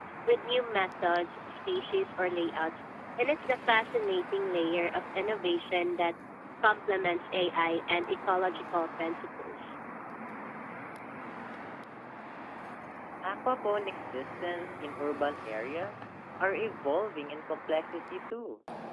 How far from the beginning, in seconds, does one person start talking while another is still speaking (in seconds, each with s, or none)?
none